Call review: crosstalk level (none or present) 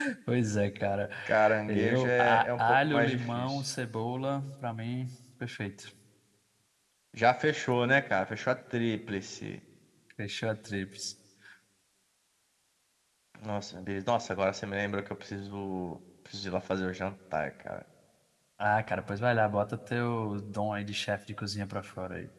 present